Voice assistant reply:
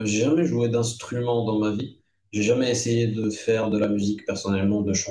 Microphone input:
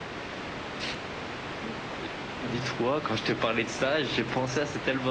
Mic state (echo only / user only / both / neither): user only